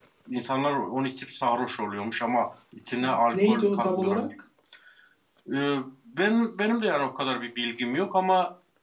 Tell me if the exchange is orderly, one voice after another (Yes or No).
No